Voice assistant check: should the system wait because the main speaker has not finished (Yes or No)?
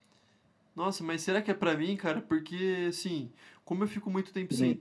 Yes